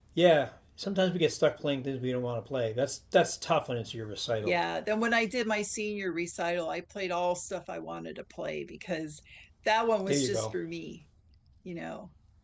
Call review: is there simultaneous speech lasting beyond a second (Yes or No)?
No